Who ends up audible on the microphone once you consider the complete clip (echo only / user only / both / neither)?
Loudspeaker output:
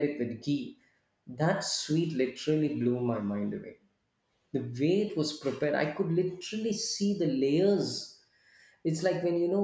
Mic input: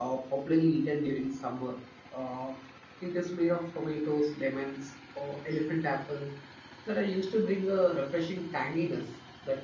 user only